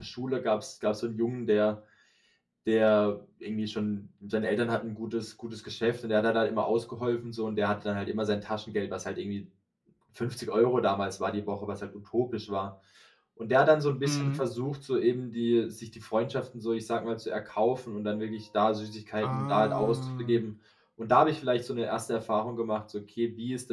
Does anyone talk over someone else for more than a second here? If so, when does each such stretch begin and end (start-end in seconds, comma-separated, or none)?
19.2-20.4